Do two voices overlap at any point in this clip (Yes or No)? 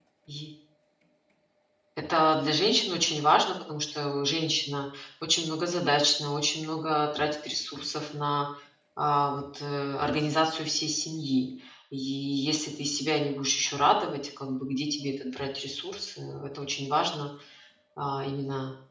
No